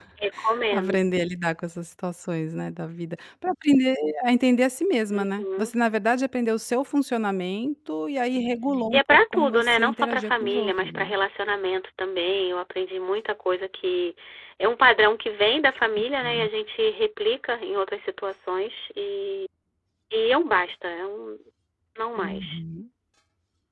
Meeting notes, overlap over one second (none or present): present